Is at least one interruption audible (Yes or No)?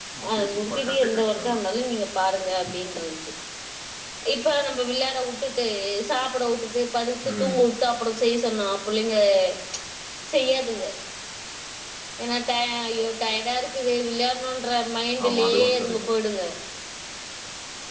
Yes